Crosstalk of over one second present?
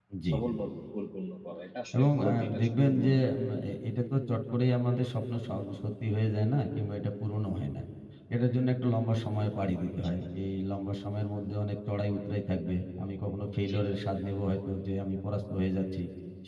Yes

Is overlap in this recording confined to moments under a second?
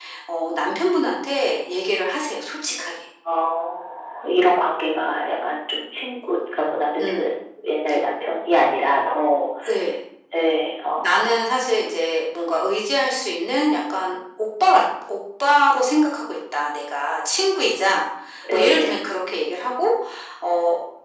Yes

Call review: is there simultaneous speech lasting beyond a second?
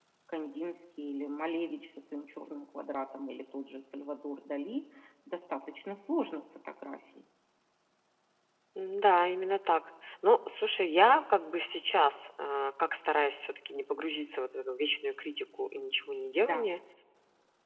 No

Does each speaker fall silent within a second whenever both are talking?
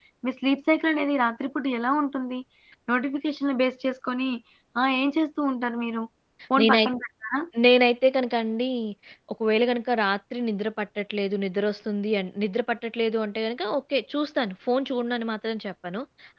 Yes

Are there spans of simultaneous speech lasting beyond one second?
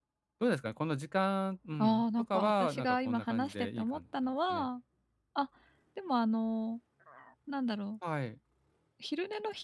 Yes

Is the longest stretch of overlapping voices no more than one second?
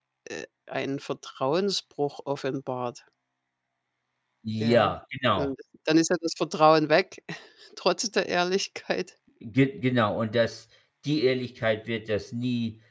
Yes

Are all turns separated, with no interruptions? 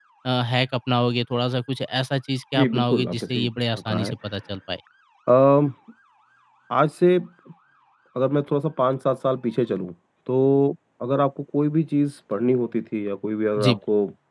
No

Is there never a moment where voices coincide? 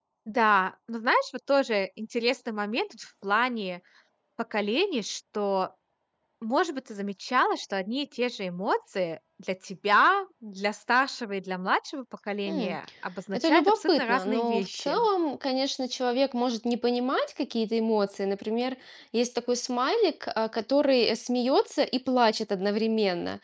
No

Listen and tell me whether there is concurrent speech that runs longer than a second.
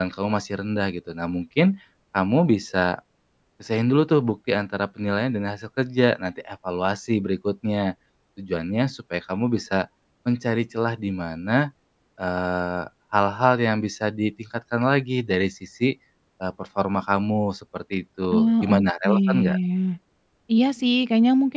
Yes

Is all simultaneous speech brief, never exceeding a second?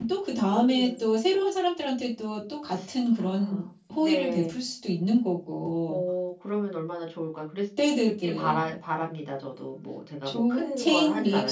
No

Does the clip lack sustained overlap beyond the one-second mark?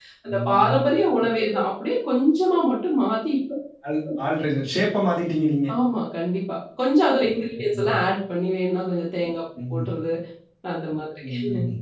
Yes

